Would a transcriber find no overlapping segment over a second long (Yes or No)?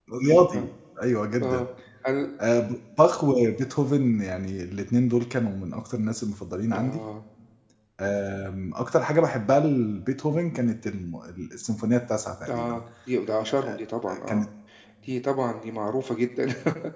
Yes